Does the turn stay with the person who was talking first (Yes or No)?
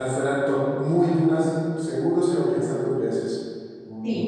No